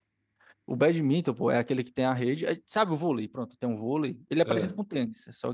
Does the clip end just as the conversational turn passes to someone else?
No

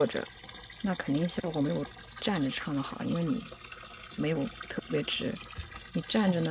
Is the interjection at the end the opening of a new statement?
No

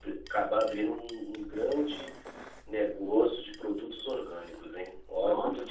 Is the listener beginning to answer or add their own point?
Yes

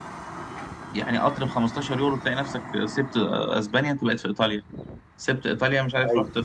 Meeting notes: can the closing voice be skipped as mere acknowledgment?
Yes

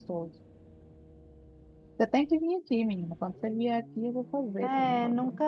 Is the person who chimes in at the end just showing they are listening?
No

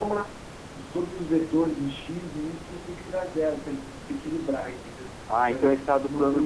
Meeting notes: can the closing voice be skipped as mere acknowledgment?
No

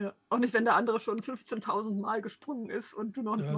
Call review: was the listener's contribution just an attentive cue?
No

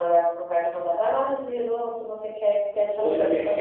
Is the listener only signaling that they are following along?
No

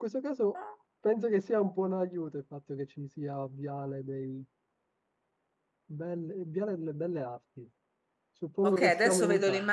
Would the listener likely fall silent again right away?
No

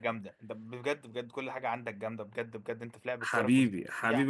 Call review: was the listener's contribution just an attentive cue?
No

